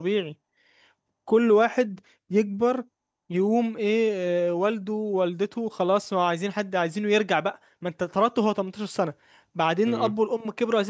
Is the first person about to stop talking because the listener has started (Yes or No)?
No